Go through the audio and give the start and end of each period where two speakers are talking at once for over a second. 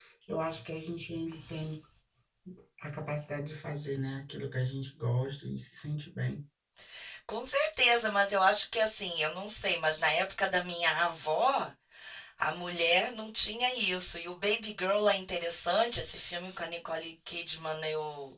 none

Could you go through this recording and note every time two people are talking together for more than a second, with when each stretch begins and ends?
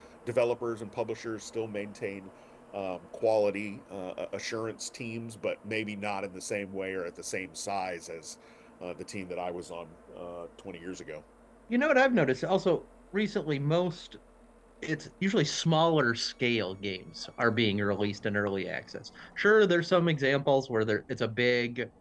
none

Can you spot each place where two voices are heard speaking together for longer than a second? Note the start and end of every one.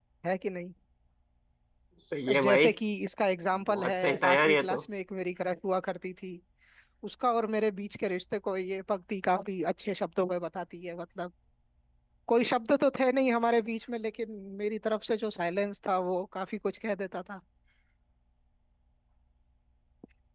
3.5-4.8

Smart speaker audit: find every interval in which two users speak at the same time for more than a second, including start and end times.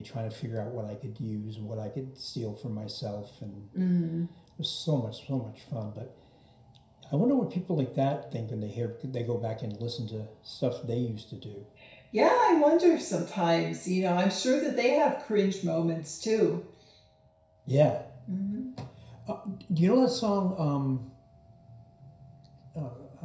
none

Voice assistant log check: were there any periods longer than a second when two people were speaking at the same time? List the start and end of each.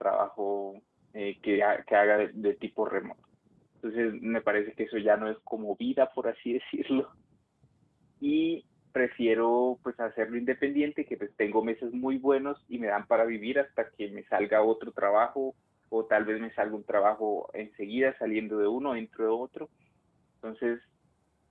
none

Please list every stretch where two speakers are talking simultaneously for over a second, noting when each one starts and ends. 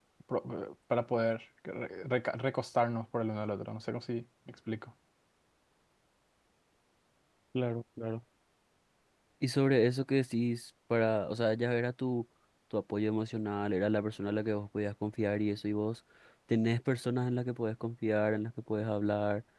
none

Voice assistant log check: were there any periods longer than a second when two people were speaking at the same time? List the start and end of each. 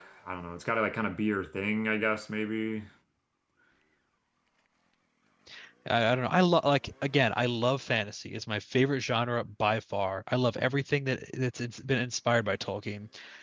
none

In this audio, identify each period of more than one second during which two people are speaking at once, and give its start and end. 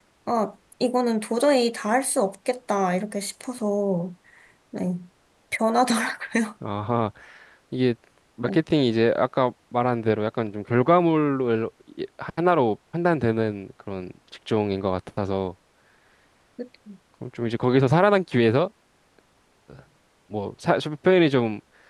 none

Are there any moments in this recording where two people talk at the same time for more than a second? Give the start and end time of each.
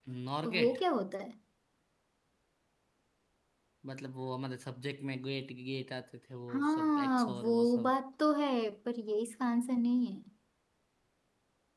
6.5-7.9

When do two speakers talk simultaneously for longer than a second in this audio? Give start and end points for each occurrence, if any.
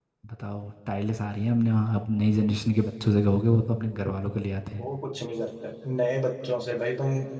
none

